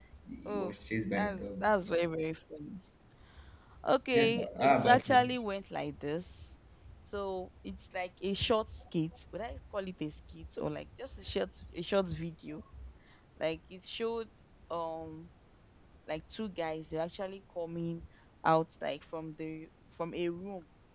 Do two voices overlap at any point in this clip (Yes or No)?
Yes